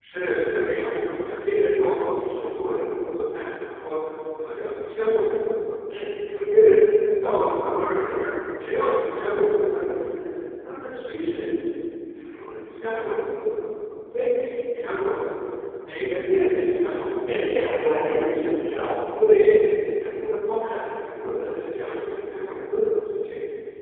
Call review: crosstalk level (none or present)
present